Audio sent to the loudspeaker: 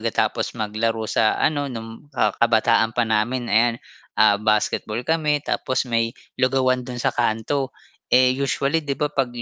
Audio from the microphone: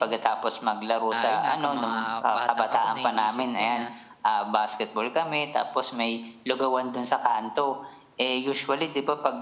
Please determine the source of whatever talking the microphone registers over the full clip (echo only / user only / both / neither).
both